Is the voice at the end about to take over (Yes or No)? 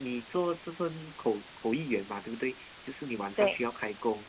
No